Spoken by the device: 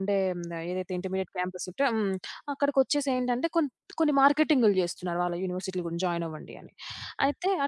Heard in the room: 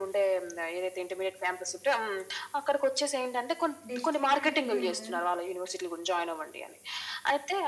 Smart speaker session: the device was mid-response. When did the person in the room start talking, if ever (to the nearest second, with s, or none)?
4 s